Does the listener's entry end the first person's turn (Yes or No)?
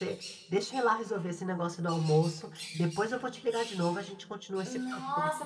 Yes